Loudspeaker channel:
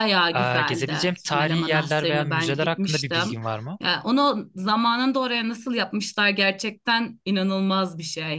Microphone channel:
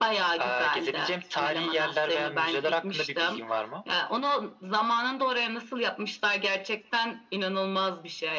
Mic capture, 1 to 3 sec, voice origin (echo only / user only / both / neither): echo only